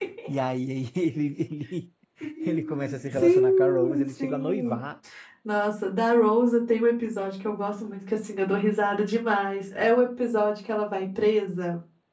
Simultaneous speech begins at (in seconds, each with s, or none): 2.5 s